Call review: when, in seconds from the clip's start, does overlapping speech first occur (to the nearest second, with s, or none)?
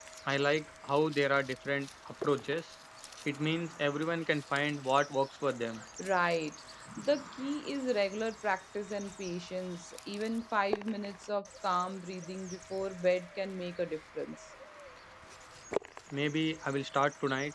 none